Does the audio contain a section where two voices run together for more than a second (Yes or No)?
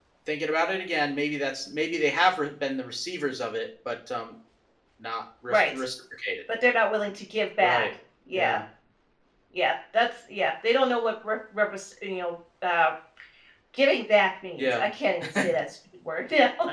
No